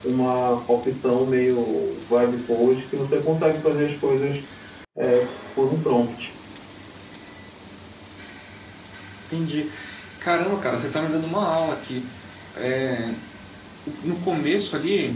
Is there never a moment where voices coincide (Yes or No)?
Yes